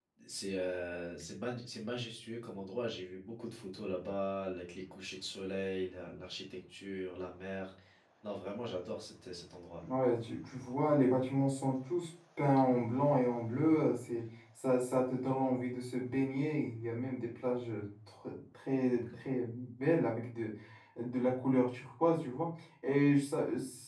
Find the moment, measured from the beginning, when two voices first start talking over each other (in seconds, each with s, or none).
none